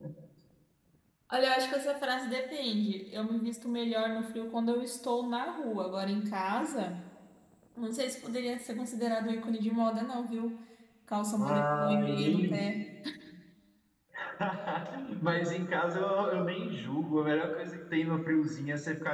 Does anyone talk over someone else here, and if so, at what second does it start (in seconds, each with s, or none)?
11.4 s